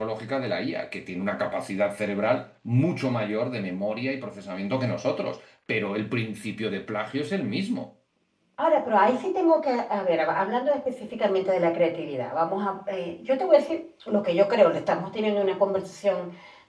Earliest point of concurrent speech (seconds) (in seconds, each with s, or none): none